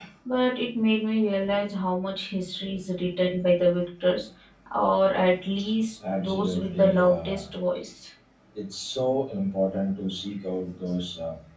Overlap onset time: 6.0 s

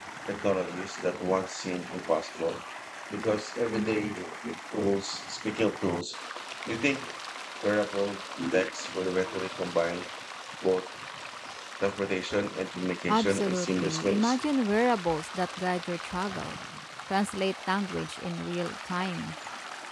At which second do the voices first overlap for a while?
13.1 s

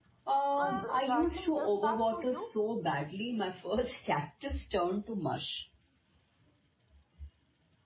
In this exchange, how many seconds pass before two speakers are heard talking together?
0.6 s

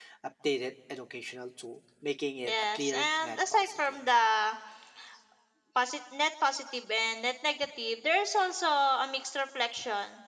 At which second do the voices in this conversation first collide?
2.4 s

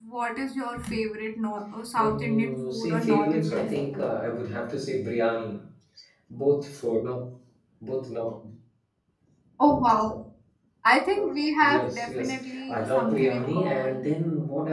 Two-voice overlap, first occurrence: 1.9 s

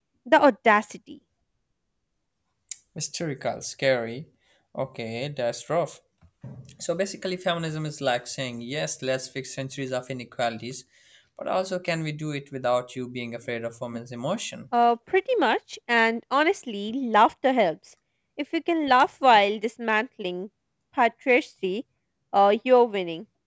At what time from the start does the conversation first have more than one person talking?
none

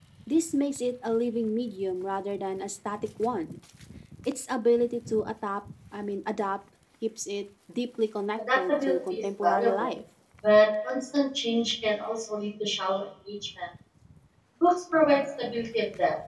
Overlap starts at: 8.4 s

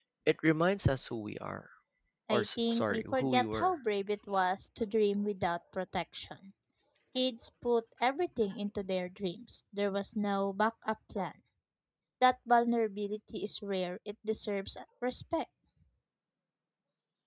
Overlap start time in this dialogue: 2.3 s

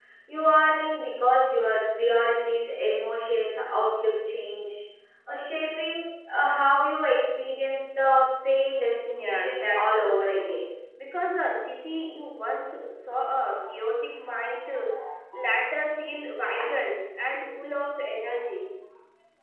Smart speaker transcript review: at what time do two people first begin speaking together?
9.1 s

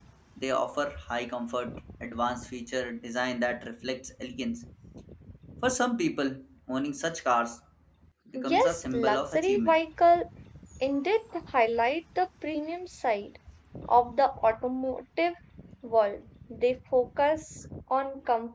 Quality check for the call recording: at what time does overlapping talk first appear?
8.4 s

